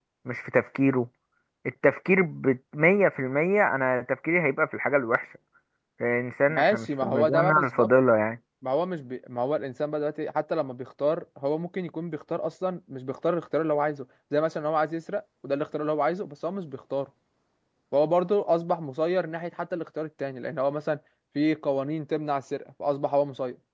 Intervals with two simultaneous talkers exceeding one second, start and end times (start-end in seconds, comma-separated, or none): 6.5-7.9